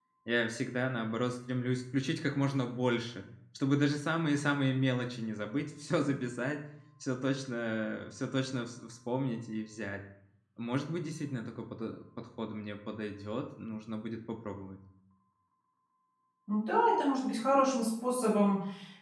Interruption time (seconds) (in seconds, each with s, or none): none